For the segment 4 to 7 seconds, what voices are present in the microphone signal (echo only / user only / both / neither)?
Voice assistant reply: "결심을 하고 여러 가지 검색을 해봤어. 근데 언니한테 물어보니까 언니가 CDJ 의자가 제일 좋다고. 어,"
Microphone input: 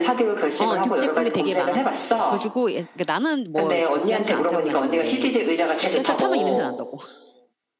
both